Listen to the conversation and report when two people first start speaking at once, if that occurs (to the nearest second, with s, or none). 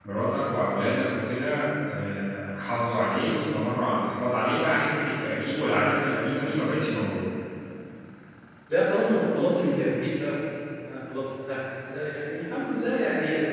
none